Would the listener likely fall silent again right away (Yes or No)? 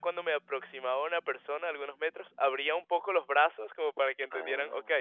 Yes